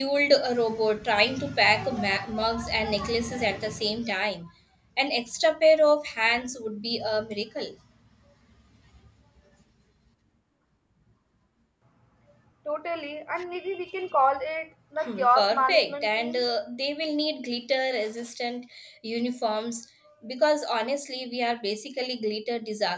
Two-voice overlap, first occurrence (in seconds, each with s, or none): 15.1 s